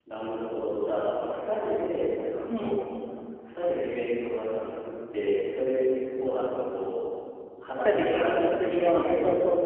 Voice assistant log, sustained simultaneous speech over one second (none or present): present